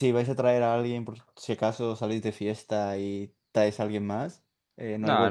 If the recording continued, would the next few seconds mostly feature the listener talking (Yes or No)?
Yes